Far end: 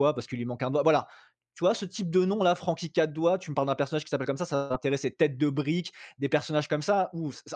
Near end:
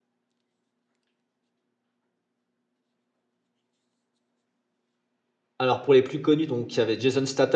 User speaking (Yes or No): Yes